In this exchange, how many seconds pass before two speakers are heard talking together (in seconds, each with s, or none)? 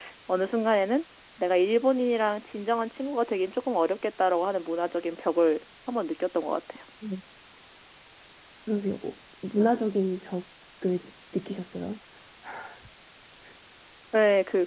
none